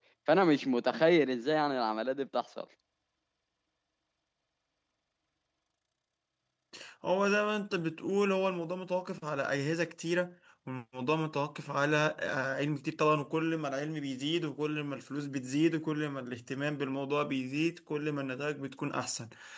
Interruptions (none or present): none